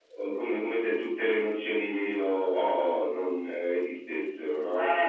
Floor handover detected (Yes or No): Yes